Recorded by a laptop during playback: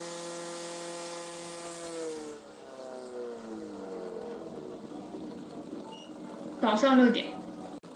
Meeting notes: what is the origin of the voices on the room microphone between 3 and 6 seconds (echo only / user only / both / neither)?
neither